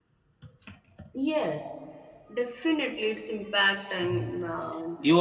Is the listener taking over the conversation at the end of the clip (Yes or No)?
Yes